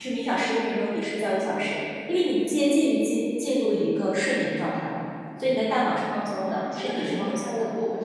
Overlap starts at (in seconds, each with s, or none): 6.3 s